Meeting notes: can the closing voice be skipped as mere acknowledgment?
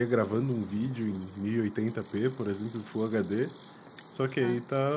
Yes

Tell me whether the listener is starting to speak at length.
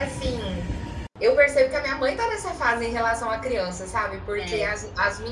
No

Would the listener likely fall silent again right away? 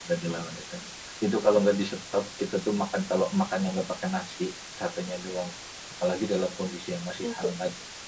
Yes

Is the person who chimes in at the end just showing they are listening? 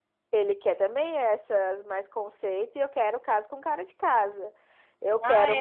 No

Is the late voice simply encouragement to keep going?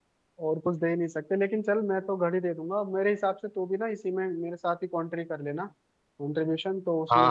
No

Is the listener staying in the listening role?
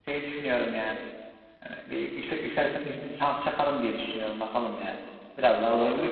No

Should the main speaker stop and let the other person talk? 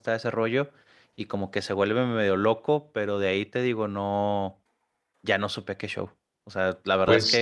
No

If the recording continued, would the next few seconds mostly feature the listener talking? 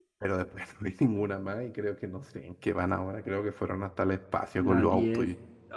Yes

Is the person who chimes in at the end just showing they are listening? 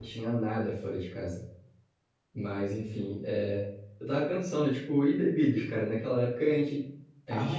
Yes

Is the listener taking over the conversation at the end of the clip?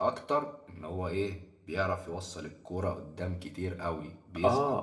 Yes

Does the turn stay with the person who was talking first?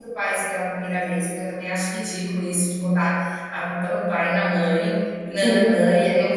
Yes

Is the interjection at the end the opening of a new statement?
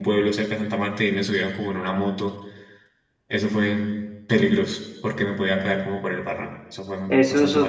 Yes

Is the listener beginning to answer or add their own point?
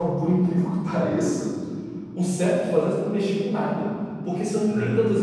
No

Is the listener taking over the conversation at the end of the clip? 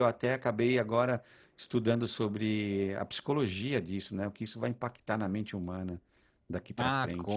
Yes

